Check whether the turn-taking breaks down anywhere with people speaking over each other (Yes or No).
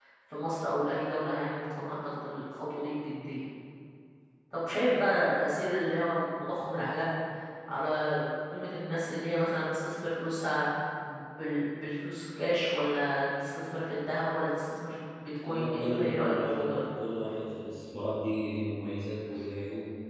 Yes